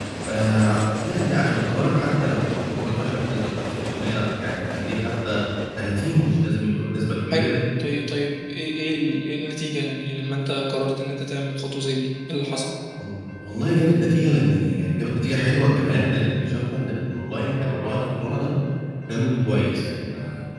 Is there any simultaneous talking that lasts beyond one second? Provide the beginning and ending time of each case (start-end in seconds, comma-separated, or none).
none